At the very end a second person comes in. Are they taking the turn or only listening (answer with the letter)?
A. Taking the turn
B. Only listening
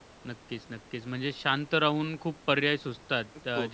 B